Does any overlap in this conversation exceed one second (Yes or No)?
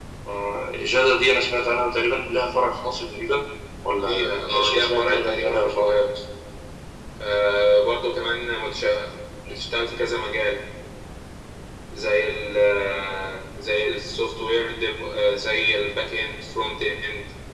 Yes